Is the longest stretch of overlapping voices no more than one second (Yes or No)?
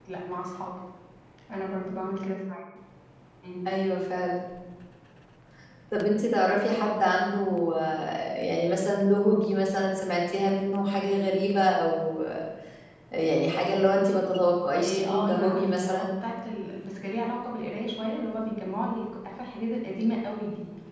No